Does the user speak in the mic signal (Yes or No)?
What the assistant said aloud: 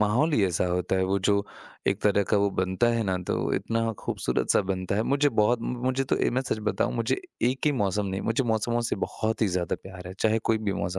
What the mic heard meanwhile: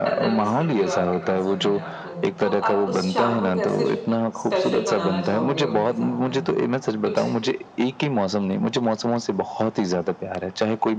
Yes